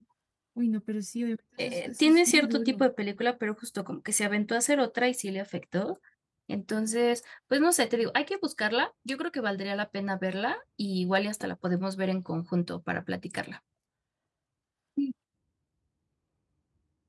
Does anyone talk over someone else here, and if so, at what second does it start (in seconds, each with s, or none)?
1.6 s